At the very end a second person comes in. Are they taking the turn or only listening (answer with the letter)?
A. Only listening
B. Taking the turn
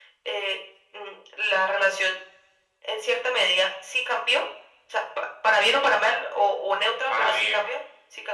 A